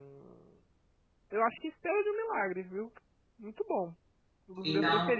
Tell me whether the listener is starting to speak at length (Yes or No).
No